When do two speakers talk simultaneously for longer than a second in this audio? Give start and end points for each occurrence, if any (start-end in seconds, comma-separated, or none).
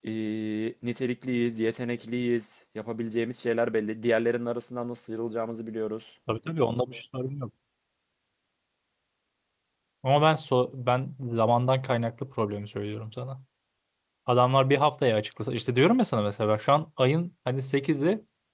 none